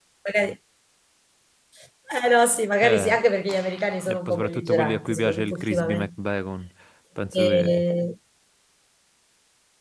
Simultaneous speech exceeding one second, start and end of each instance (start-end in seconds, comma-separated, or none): 4.1-6.1